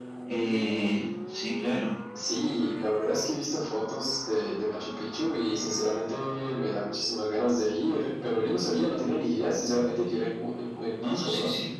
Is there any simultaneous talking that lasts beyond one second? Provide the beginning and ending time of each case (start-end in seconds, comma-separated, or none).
none